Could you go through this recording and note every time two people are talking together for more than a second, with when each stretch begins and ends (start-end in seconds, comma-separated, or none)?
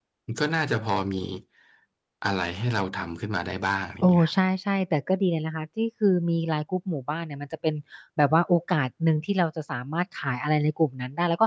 none